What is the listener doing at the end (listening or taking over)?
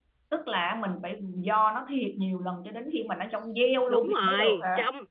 taking over